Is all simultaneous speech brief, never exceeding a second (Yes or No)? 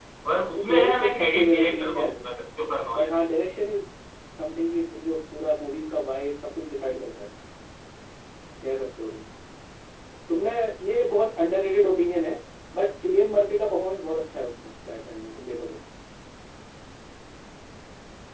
No